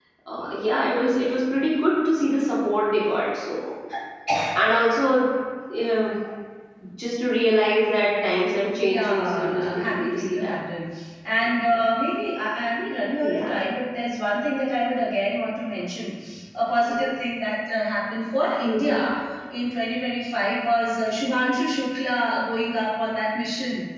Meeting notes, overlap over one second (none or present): present